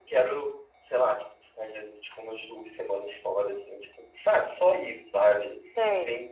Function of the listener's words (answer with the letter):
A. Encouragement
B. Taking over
A